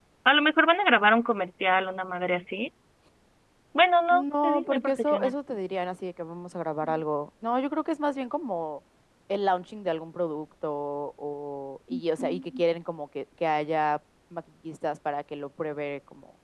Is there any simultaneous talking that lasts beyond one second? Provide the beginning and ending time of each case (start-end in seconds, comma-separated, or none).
4.1-5.3